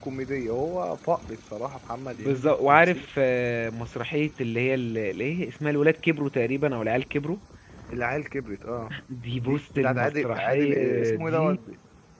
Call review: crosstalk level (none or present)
present